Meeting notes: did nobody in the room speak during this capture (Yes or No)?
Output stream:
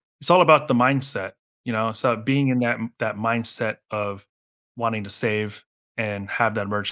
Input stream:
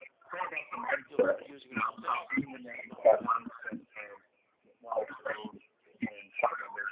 No